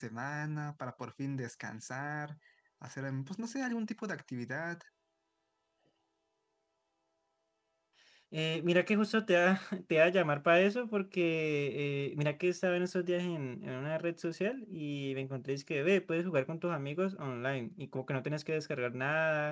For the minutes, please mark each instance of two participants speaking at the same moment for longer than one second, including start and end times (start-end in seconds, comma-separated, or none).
none